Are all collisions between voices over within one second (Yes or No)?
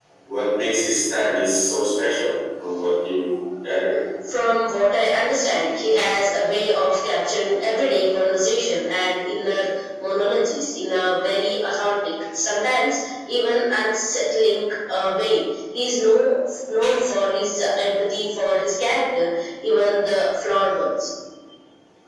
Yes